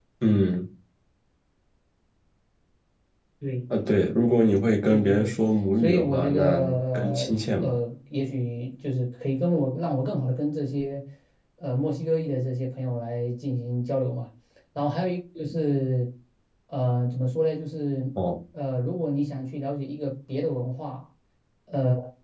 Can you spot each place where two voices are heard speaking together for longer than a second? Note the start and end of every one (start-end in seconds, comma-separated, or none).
5.8-7.8